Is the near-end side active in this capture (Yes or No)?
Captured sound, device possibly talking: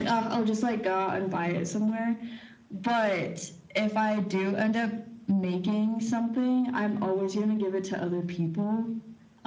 No